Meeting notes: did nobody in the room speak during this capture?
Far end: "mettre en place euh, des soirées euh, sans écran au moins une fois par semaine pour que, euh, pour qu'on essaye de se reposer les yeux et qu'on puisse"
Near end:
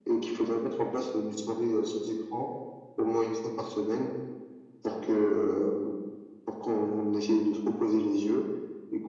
Yes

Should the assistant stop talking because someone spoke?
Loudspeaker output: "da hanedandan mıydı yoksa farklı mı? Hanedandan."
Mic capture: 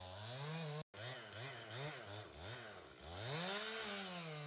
No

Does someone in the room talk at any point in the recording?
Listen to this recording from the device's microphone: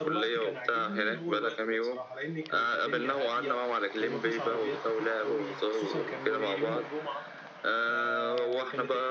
Yes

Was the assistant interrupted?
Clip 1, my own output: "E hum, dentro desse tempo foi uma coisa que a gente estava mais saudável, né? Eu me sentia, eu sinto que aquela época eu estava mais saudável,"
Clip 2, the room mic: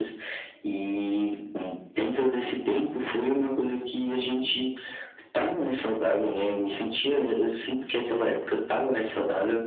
No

